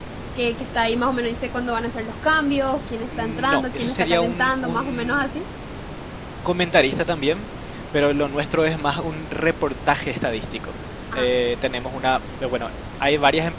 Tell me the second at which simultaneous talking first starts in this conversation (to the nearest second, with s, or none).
3 s